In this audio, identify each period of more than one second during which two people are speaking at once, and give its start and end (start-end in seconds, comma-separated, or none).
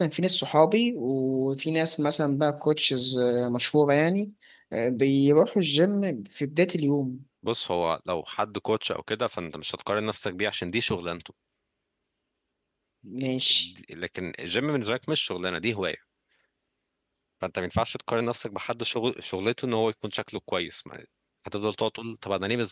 none